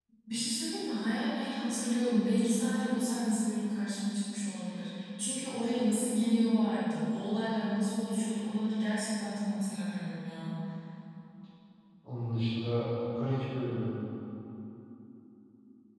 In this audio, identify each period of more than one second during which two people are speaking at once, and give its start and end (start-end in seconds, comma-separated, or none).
none